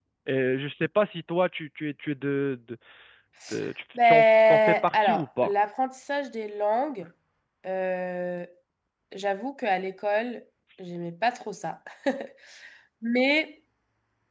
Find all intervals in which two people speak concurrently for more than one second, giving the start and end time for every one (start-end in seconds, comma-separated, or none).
4.0-5.5